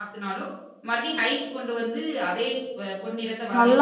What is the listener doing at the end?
taking over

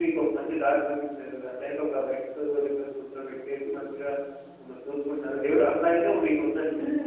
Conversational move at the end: taking over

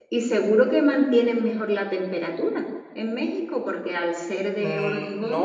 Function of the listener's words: taking over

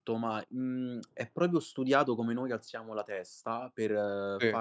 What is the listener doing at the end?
listening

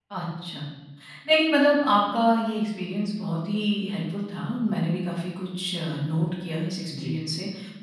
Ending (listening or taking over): listening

